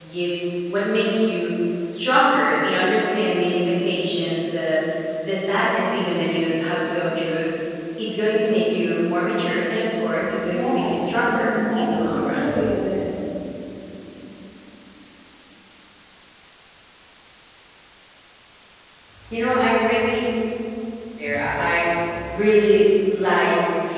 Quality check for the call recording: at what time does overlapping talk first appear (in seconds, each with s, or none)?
10.5 s